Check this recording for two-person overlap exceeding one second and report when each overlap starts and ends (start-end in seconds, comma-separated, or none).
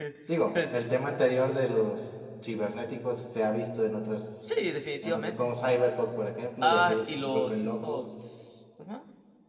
6.6-8.1